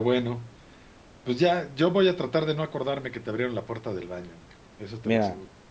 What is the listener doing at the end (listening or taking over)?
taking over